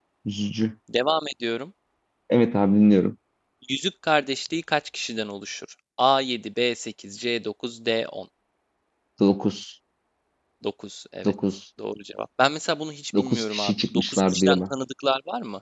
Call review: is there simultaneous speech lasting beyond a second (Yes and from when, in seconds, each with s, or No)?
Yes, from 13.1 s